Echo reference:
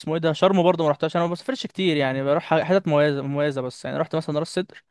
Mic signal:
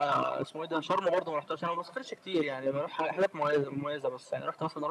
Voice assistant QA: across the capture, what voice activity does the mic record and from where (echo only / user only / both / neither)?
echo only